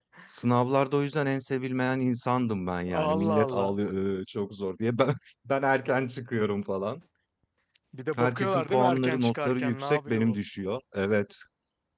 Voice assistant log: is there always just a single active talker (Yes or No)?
No